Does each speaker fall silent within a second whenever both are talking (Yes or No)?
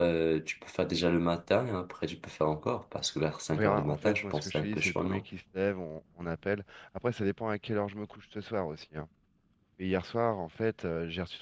No